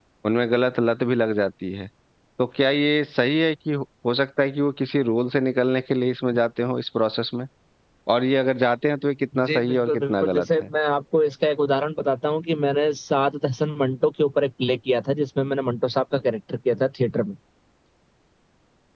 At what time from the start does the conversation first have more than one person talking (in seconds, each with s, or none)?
9.3 s